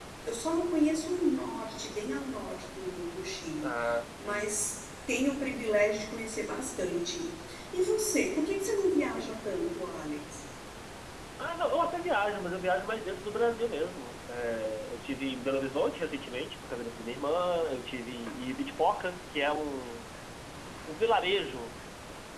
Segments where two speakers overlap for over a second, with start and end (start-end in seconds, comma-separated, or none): none